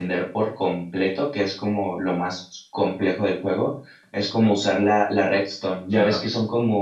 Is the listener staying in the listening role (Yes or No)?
Yes